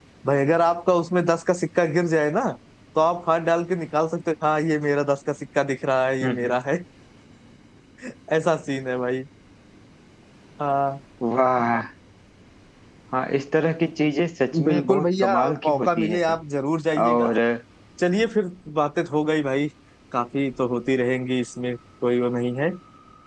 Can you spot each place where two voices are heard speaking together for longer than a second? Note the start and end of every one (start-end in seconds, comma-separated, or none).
14.6-16.4